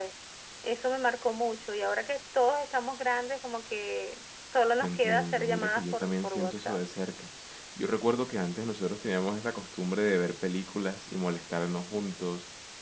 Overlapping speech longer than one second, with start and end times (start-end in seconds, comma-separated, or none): 4.8-6.8